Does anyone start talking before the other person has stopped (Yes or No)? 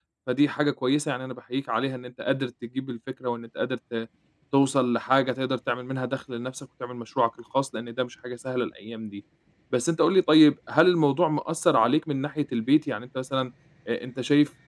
No